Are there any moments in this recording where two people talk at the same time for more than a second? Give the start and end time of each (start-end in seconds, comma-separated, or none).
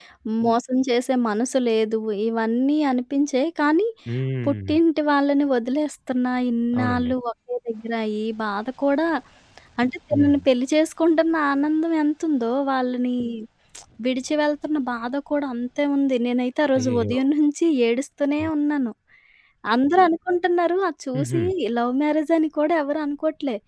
none